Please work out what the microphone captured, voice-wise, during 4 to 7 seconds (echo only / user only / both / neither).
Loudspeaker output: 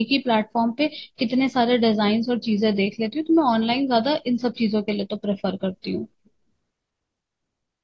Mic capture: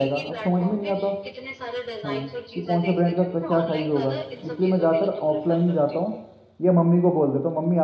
both